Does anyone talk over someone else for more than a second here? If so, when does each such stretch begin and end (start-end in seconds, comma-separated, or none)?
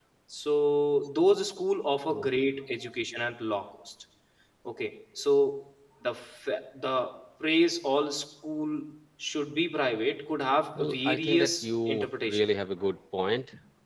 10.8-12.5